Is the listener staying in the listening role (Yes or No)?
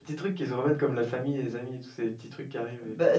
No